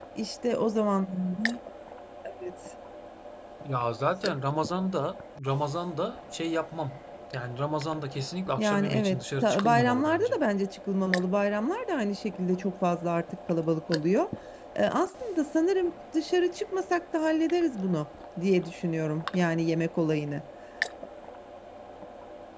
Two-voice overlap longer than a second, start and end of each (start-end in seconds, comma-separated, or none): 8.6-10.4